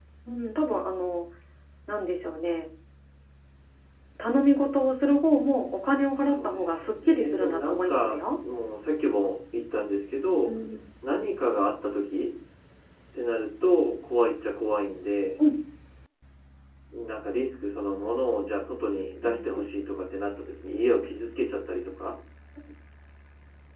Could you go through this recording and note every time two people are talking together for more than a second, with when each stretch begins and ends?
6.3-8.4

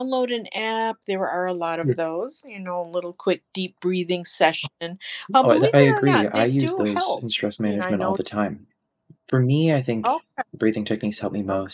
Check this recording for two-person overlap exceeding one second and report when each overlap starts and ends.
5.4-7.2

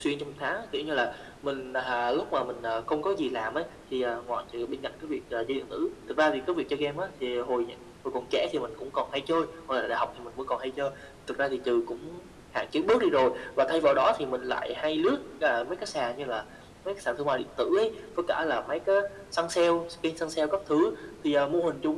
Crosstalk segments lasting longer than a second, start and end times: none

